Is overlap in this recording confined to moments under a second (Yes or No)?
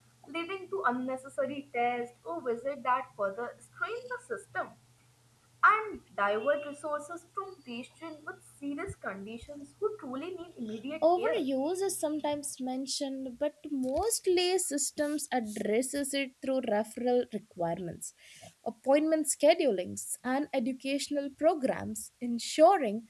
Yes